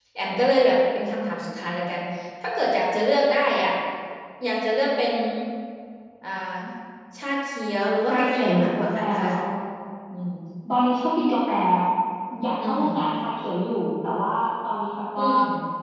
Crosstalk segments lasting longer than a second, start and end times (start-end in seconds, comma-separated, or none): 8.1-9.3